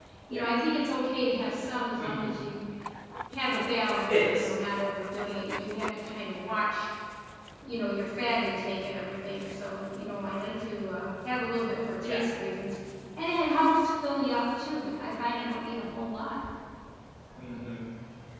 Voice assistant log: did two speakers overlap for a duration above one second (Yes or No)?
No